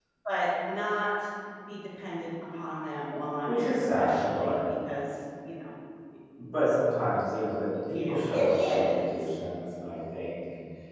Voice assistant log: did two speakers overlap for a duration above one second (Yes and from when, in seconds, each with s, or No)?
Yes, from 3.5 s